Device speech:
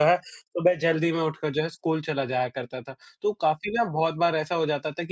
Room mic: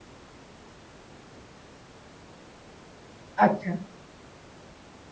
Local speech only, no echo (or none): अच्छा।